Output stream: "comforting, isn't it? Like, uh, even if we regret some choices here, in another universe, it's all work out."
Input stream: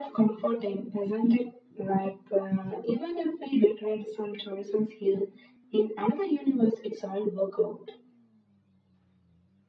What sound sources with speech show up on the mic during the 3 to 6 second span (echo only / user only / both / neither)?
echo only